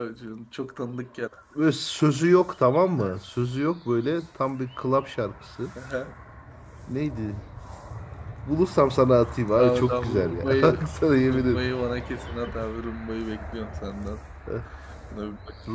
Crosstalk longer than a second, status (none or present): present